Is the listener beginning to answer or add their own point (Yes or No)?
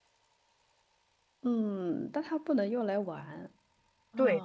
Yes